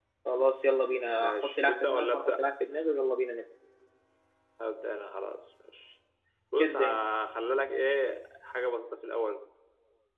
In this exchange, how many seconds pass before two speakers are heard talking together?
1.1 s

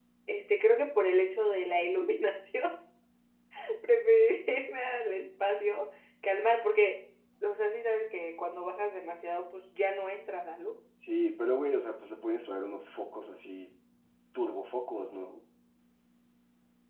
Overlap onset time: none

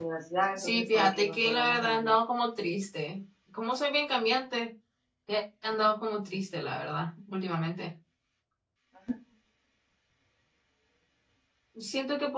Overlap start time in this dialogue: 0.6 s

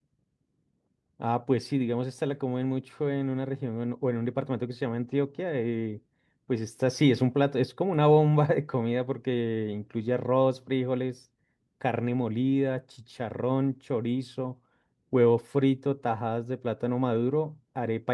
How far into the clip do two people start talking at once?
none

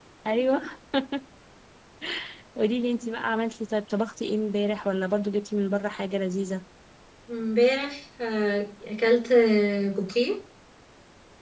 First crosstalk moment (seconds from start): none

